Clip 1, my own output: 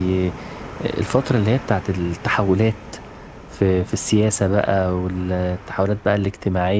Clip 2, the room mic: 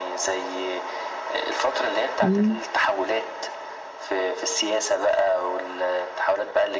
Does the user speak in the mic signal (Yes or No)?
Yes